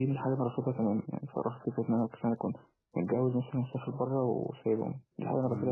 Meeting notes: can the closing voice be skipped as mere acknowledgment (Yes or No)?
No